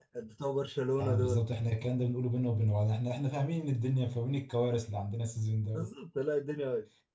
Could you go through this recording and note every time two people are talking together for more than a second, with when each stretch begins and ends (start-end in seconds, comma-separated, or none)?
none